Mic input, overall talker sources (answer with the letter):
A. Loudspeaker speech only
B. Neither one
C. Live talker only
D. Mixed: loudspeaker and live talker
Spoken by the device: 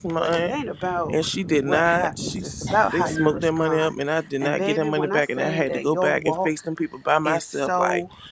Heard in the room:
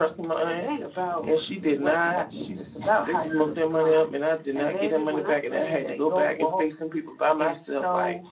A